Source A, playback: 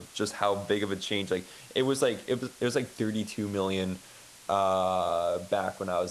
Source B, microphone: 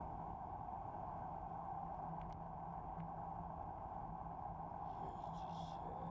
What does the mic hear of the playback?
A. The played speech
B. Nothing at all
B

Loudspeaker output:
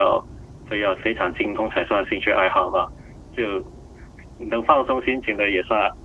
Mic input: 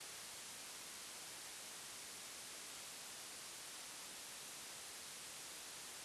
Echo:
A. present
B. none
B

